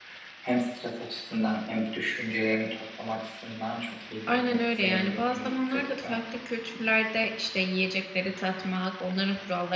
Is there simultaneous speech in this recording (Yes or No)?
Yes